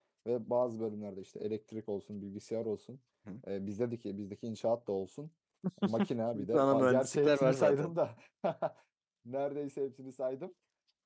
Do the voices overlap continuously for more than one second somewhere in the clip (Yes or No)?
Yes